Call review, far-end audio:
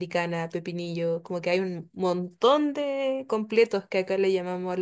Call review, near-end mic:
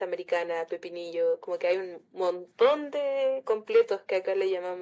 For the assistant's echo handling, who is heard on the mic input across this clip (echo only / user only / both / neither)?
echo only